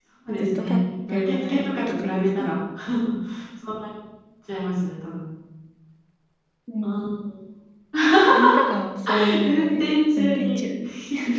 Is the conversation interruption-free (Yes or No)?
No